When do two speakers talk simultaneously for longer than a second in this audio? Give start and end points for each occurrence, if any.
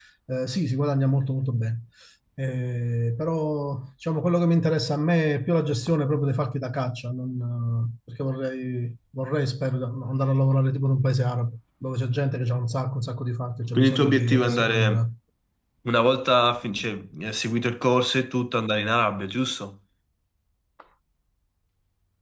13.8-15.0

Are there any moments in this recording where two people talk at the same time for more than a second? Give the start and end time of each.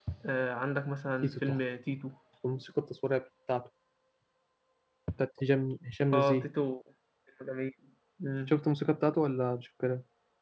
none

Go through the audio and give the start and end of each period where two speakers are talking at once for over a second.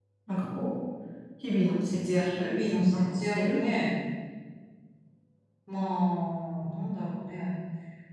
2.4-3.6

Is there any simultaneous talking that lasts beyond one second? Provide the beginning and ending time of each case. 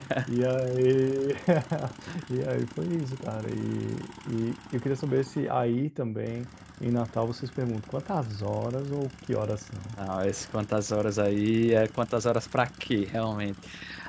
none

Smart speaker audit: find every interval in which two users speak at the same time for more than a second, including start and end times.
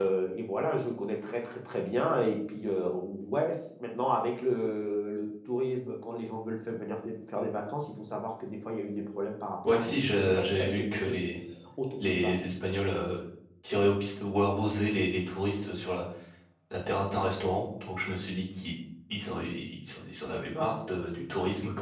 9.6-11.3

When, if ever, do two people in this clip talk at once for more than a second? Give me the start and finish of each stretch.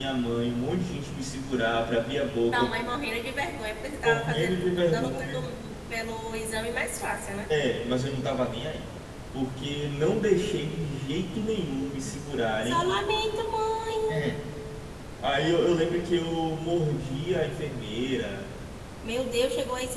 4.0-5.5

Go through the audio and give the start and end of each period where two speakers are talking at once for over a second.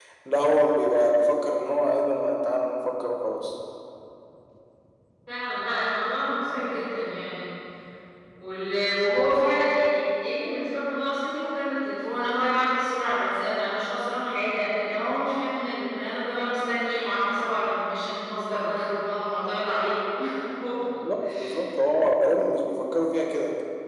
none

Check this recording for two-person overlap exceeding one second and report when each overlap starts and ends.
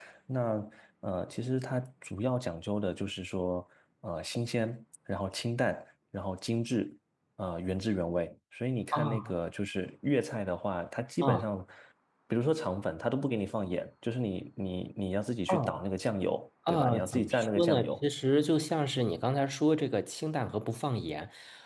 16.7-18.0

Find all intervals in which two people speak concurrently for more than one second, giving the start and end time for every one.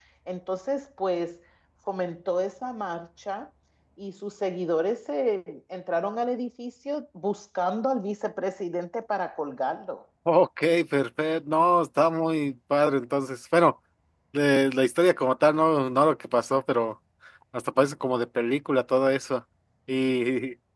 none

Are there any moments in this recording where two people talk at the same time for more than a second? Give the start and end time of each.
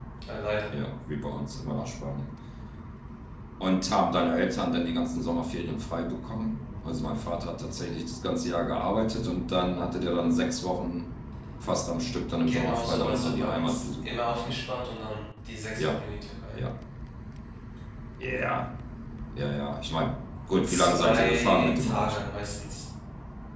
12.5-14.6, 20.7-22.3

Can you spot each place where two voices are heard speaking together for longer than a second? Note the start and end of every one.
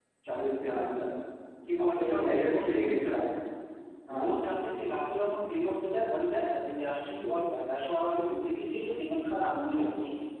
1.8-3.3

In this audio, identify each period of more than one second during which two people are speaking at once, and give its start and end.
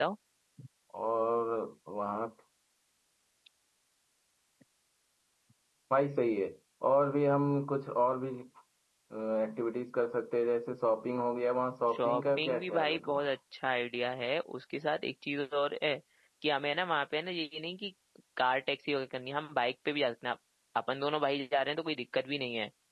11.9-13.3

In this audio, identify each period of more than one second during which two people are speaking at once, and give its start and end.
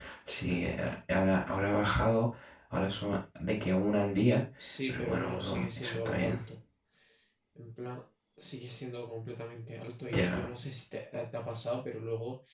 4.9-6.4

